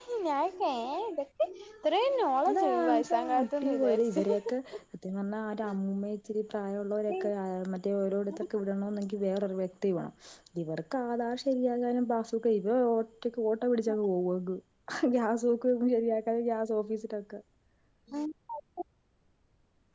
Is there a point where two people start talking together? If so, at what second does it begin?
2.5 s

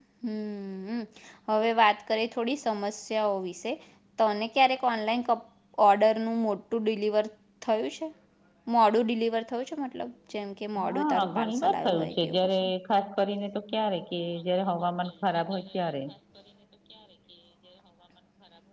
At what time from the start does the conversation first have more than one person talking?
10.9 s

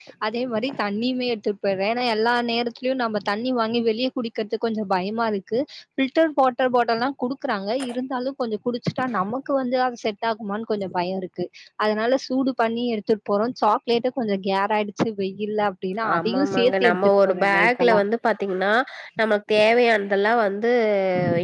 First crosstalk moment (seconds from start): 16.0 s

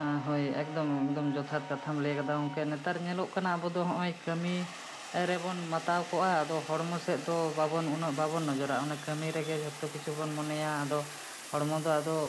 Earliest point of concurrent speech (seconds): none

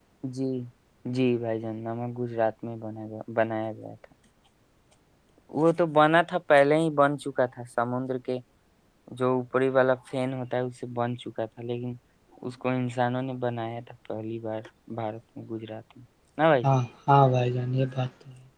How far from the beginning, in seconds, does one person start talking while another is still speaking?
none

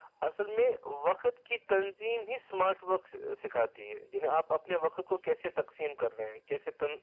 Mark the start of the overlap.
none

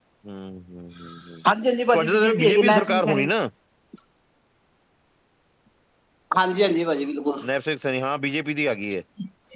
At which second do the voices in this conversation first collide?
1.9 s

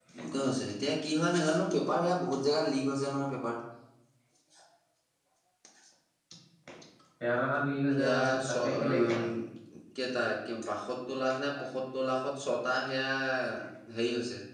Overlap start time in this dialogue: 8.0 s

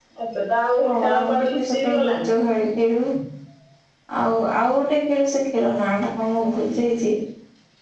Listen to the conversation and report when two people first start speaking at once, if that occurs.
0.8 s

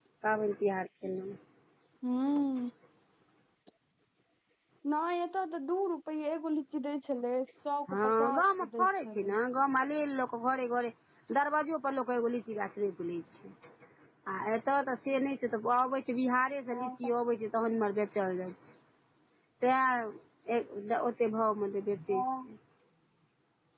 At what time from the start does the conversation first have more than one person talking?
7.9 s

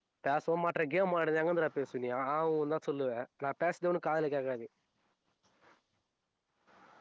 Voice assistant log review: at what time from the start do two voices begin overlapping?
none

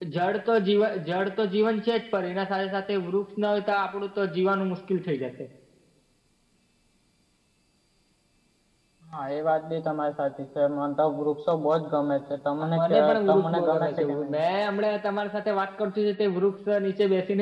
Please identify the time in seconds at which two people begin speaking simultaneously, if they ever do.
12.6 s

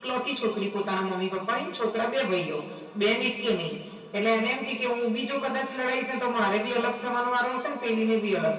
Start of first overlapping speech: none

